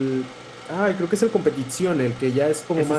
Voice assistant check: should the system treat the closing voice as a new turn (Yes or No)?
Yes